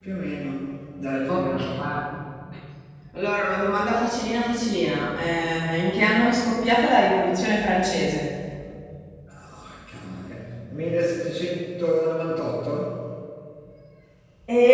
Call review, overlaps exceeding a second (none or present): none